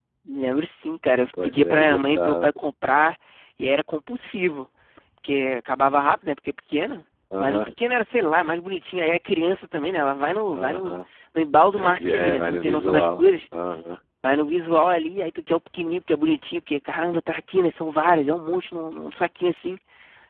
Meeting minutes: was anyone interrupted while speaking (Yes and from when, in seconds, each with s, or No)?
Yes, from 1.3 s